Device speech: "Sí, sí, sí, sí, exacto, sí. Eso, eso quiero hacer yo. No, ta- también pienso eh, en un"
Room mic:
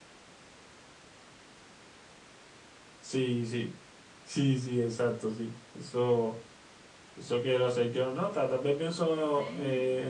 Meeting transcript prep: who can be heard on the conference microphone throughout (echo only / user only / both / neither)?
both